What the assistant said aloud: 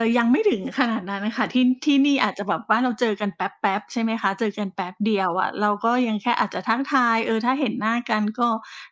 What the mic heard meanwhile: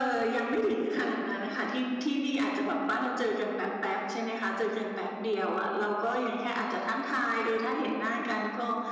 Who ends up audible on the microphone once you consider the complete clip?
echo only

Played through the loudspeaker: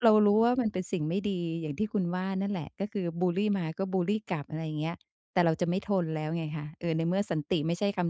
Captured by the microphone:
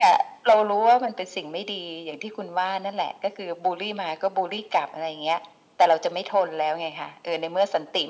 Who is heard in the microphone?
echo only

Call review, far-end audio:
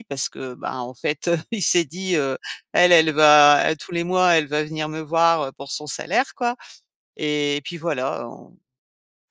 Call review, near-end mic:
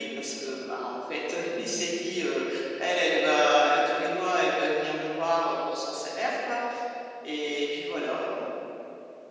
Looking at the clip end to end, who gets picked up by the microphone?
echo only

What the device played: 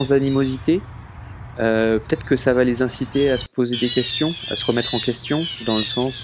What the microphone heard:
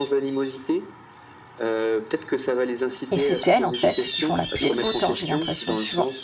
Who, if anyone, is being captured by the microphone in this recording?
both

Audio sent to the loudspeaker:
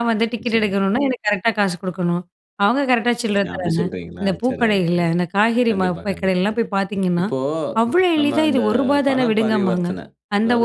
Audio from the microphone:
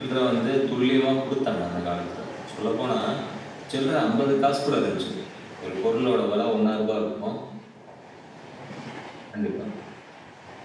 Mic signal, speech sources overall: user only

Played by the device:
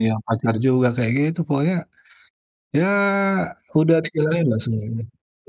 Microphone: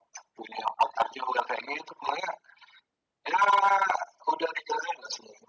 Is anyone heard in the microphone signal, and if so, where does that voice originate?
echo only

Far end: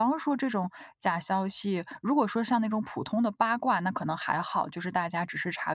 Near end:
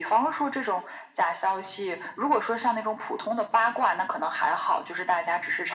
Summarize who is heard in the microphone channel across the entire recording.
echo only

